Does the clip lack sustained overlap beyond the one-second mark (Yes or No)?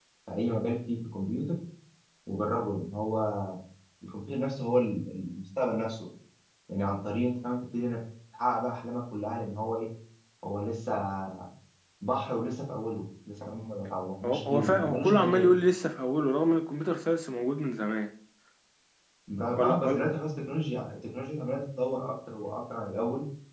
No